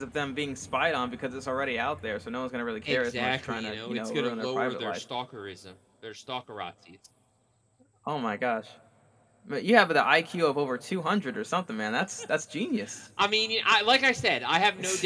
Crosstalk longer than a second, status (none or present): present